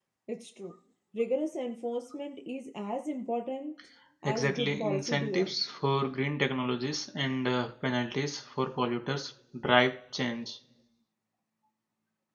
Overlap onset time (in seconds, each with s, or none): 4.2 s